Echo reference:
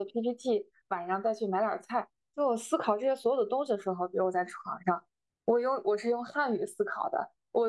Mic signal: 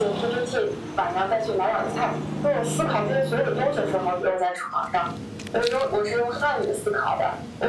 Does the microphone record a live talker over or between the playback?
No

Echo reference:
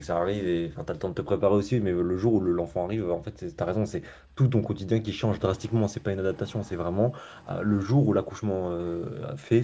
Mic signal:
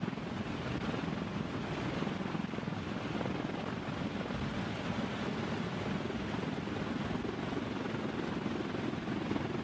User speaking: No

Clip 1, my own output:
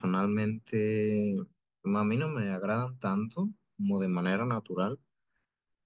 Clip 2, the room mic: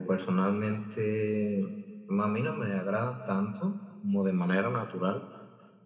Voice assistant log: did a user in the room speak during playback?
No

